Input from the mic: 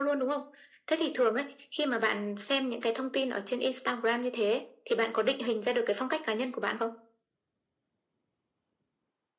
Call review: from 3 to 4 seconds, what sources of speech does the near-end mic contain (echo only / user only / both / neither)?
echo only